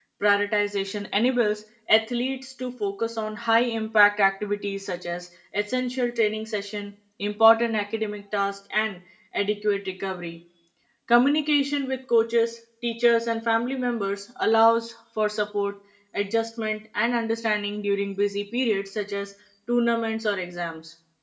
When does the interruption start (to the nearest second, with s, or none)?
none